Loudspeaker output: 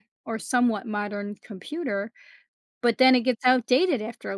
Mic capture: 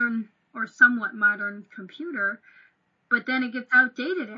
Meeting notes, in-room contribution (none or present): none